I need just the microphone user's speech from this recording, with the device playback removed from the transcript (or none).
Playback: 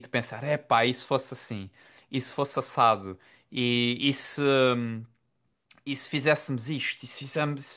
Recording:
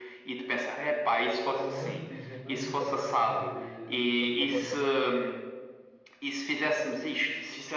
falam muito, dizem muito também, eh, eu percebo completamente.